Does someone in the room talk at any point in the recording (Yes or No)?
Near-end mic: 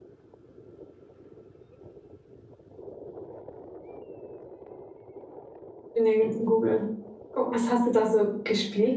Yes